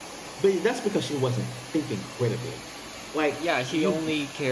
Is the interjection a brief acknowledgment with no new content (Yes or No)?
No